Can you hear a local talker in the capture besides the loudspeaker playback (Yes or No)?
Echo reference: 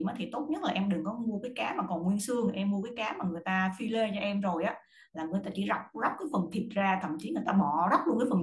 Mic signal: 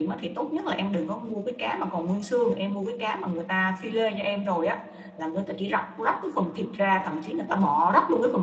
No